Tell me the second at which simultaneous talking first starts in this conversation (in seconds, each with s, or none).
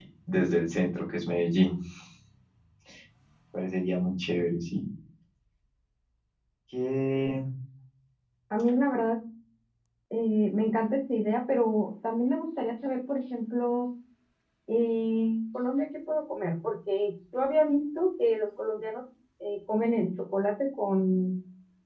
none